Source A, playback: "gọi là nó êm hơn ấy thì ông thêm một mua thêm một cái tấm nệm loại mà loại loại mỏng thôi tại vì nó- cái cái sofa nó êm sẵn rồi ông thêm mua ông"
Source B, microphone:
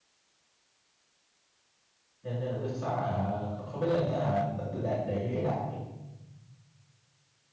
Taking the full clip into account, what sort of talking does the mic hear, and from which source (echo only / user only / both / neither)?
user only